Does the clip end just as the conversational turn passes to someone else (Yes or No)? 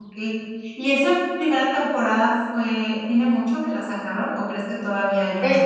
Yes